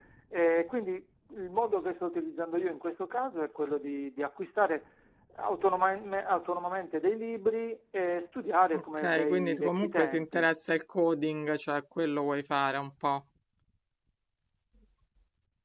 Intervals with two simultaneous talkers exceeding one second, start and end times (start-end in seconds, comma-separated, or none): 8.7-10.5